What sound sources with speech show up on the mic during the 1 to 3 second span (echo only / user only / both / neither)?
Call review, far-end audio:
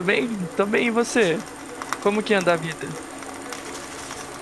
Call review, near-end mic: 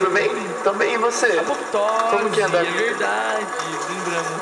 both